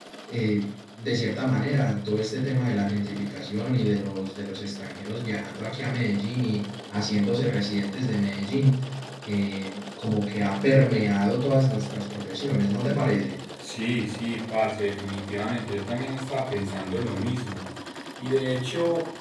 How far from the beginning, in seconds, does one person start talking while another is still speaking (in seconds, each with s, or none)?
none